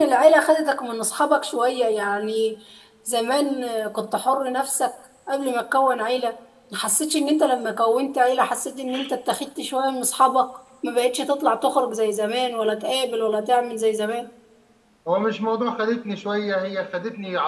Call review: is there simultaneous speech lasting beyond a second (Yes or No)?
No